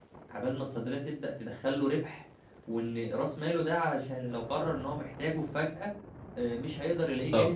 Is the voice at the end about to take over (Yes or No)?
Yes